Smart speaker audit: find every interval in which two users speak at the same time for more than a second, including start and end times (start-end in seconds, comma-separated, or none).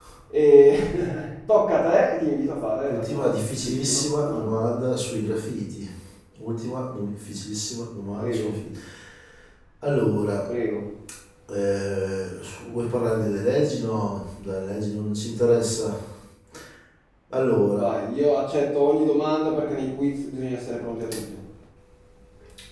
2.9-4.5